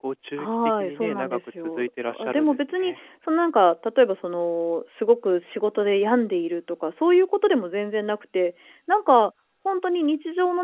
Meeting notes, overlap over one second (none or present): present